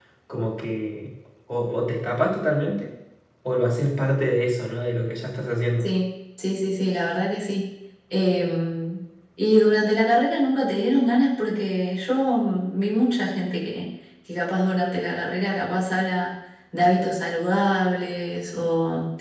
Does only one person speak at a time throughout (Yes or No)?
Yes